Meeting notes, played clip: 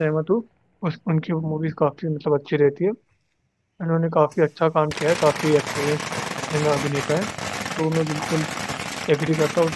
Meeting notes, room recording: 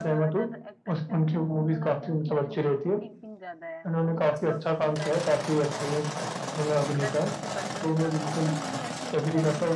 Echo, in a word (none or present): present